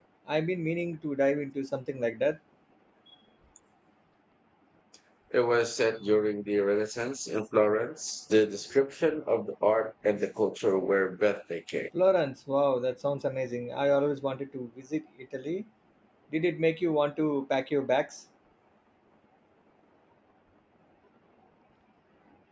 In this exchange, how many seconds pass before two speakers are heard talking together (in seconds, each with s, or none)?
none